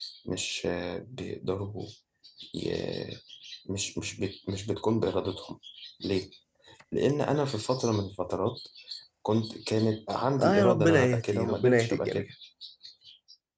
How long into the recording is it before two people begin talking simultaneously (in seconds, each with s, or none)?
10.1 s